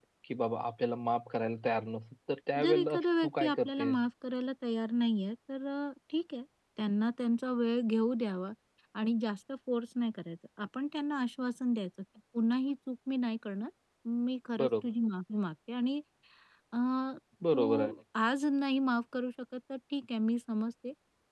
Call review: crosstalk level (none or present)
present